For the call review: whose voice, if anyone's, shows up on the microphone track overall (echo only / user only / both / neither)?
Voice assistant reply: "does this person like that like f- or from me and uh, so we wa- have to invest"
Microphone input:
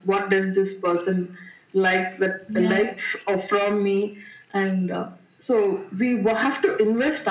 both